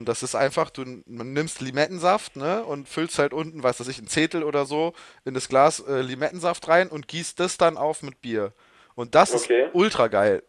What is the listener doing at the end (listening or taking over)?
listening